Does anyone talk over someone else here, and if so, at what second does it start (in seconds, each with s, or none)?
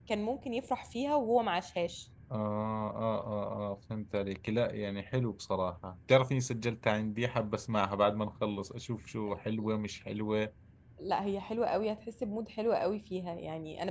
none